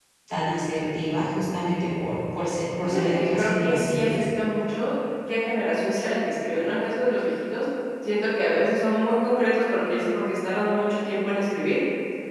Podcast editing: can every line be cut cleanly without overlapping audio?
No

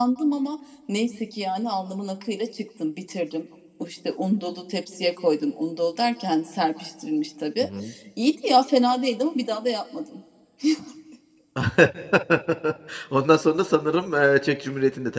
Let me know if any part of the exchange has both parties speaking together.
No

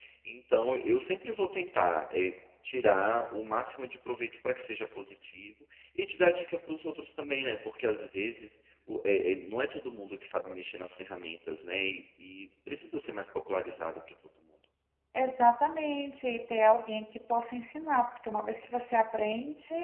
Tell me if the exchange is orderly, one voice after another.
Yes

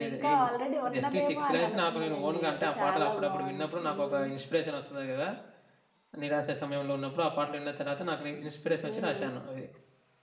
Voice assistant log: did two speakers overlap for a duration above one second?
Yes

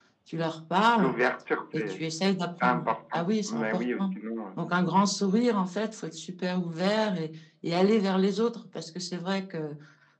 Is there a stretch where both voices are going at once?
Yes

